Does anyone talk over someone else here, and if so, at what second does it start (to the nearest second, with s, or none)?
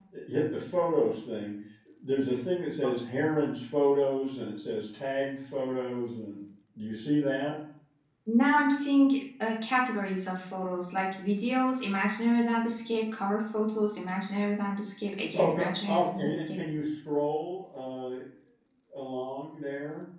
15 s